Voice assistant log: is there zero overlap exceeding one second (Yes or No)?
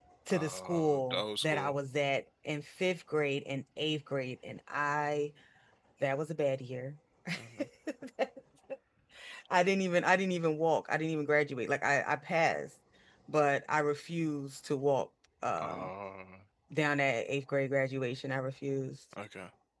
No